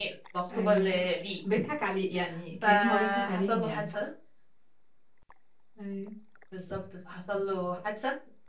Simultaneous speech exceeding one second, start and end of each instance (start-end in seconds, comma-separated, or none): 2.6-3.8